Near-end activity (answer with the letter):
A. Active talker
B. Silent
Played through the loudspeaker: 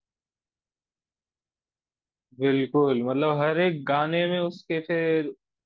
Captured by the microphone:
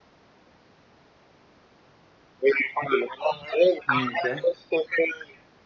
A